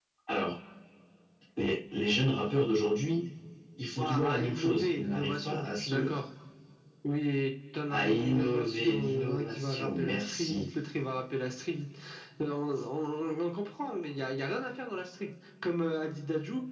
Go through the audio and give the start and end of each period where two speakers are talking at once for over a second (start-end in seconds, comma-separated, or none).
4.0-6.1, 7.9-10.7